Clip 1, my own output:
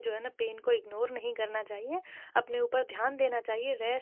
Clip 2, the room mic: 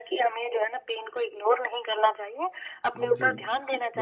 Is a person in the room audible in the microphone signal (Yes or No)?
Yes